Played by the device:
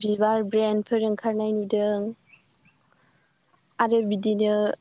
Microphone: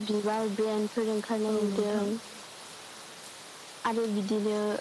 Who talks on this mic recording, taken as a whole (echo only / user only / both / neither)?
both